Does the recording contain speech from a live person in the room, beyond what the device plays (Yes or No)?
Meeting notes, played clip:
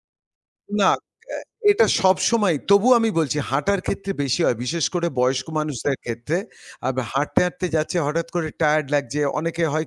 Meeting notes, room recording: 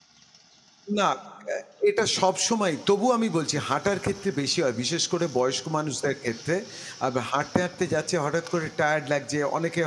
No